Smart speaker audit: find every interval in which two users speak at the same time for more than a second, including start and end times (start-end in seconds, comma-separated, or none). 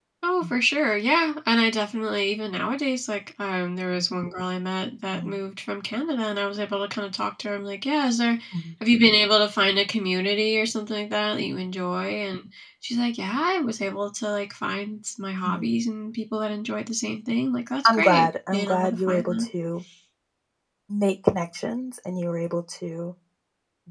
17.9-19.4